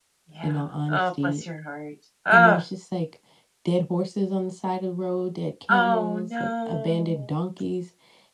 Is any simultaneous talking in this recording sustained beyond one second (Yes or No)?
Yes